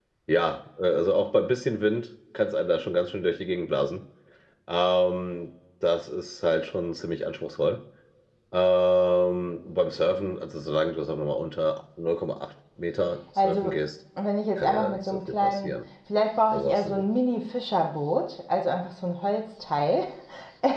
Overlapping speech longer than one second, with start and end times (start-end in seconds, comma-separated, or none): 14.6-15.8